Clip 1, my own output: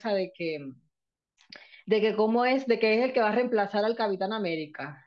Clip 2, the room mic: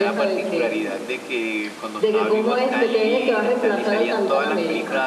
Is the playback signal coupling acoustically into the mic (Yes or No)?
Yes